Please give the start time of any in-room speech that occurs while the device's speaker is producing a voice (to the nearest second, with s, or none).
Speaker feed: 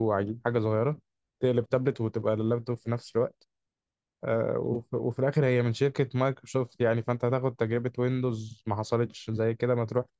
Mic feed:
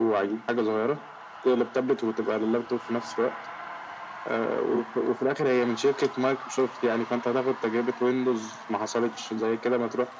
none